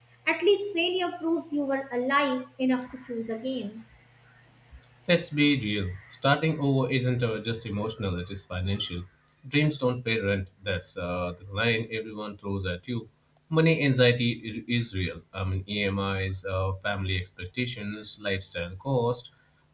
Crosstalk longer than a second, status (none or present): none